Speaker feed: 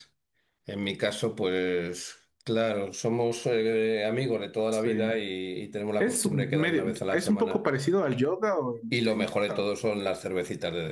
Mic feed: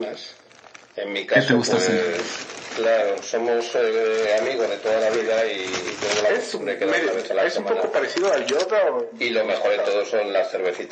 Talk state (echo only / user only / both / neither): both